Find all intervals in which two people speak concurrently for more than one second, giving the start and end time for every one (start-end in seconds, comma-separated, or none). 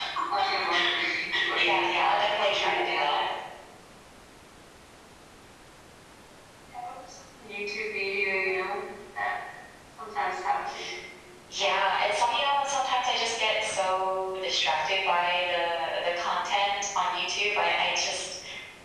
1.6-3.2